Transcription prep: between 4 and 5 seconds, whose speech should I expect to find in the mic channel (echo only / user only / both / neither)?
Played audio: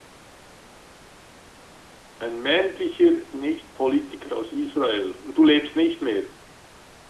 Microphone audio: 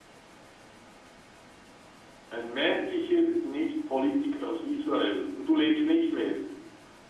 echo only